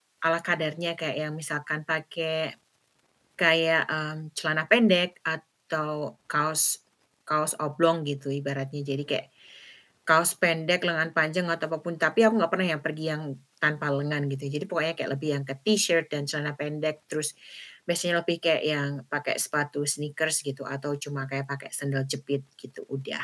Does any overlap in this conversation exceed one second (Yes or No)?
No